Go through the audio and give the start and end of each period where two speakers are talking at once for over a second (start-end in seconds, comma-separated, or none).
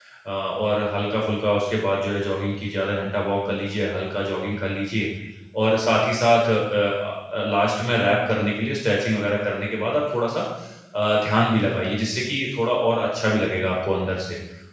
none